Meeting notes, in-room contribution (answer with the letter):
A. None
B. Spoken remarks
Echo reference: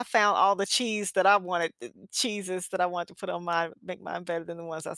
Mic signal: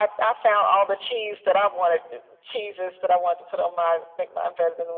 A